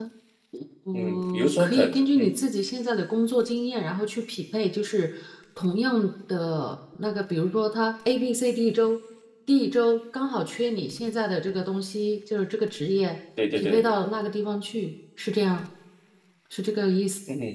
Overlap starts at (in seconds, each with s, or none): 0.9 s